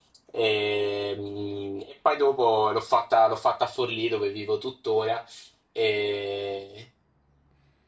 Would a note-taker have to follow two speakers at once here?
No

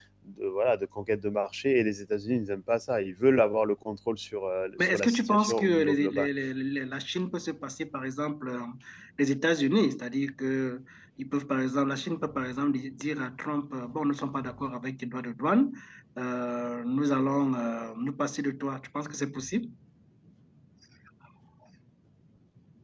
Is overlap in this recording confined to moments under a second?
No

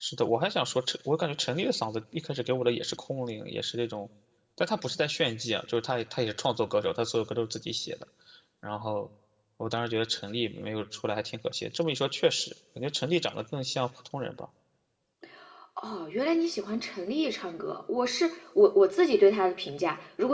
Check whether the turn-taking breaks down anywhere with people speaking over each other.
No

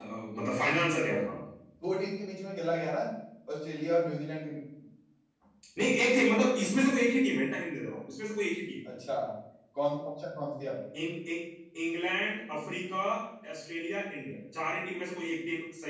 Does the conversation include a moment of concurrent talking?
No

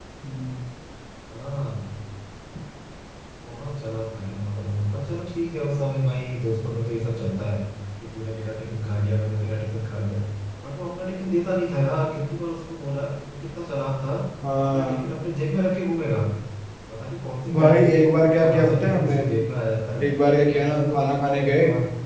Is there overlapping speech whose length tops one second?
Yes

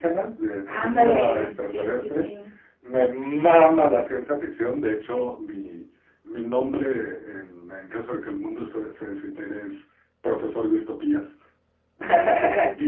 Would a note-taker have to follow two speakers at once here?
Yes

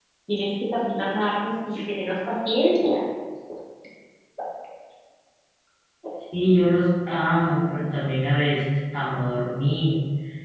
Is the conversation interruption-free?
Yes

